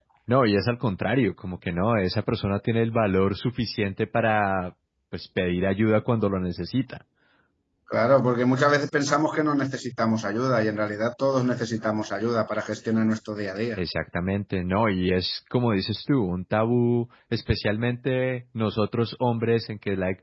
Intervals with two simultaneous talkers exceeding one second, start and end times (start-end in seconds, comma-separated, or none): none